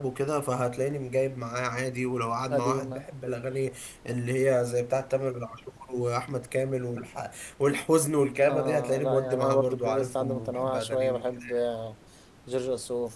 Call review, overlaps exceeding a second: present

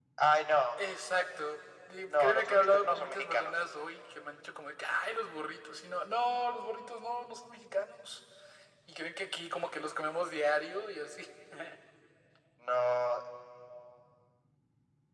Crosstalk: present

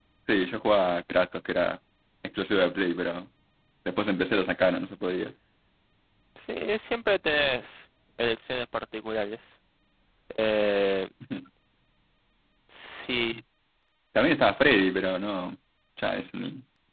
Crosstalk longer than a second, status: none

